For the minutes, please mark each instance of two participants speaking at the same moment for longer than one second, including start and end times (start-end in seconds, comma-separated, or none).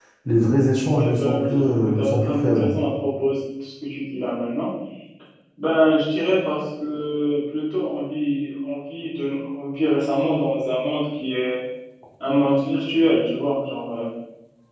0.8-2.7